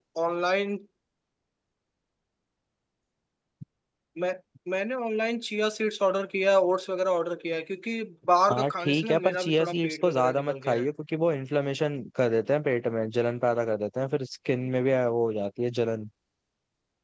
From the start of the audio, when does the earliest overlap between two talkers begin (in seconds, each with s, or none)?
8.5 s